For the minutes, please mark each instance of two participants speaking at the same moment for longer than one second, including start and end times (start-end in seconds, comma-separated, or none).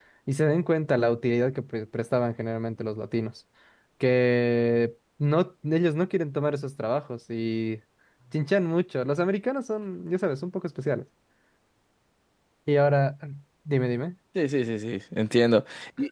none